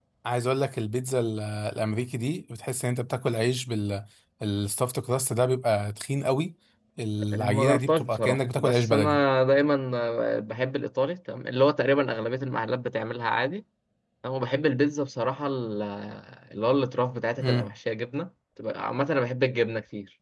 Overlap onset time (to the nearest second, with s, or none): 7 s